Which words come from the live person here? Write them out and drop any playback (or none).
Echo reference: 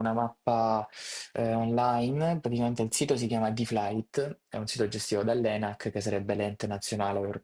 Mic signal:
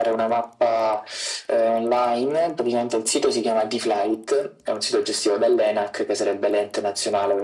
none